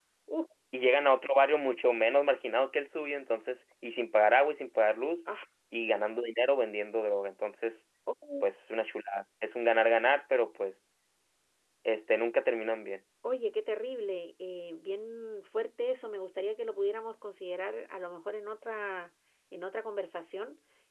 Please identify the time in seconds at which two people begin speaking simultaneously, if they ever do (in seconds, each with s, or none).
none